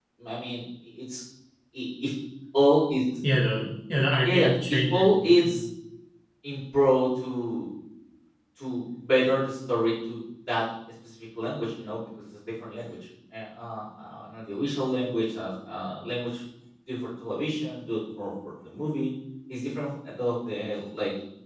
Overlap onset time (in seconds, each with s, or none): 4.2 s